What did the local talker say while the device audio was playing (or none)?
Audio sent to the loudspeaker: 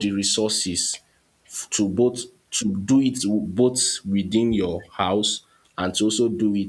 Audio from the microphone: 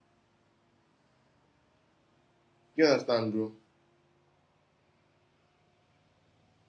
You understand, bro?